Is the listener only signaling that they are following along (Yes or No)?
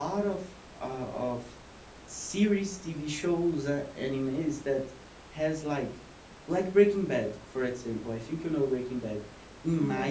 Yes